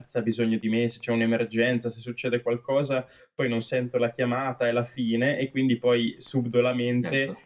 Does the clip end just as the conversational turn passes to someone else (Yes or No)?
No